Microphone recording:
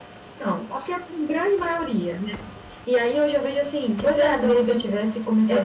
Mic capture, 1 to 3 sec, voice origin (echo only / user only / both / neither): echo only